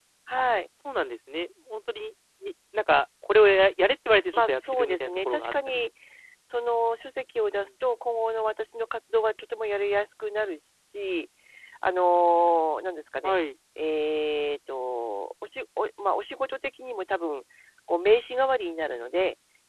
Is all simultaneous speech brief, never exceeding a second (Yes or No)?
No